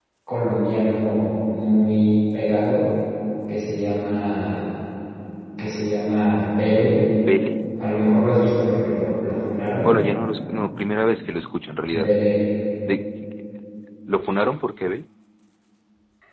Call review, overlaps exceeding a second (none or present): none